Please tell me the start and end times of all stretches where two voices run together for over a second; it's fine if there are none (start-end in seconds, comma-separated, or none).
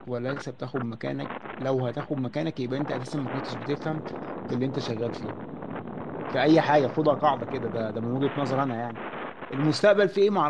none